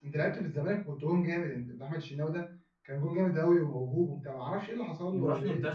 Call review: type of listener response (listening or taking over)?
taking over